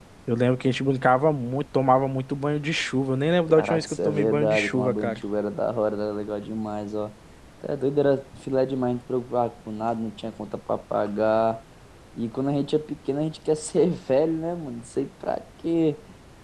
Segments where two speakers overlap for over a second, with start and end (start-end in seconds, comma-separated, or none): 3.5-5.2